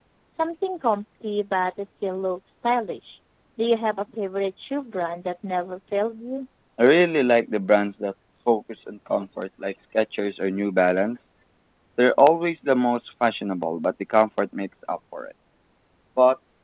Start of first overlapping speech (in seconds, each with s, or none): none